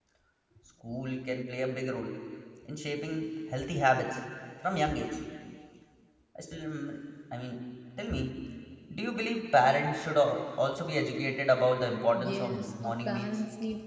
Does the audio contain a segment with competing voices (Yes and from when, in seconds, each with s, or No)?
Yes, from 12.1 s